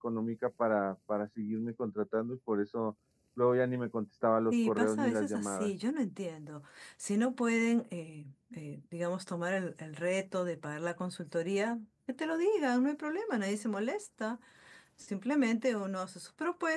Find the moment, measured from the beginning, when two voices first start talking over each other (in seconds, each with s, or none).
4.5 s